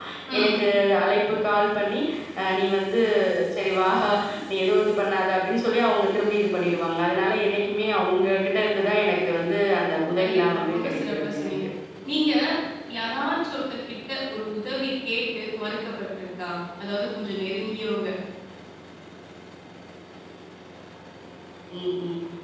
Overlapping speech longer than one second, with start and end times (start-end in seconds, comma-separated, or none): 10.2-11.5